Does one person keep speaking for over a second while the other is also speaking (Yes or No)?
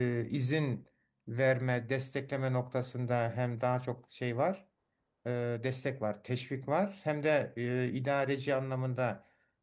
No